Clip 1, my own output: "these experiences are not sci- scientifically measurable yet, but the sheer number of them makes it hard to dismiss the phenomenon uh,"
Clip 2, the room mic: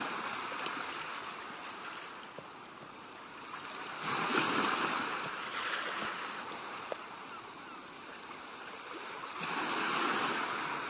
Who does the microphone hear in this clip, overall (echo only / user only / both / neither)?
neither